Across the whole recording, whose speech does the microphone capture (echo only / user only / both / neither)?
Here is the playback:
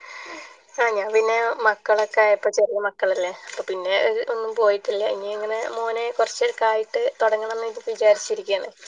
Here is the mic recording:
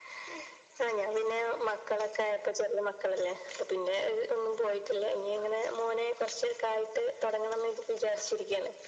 echo only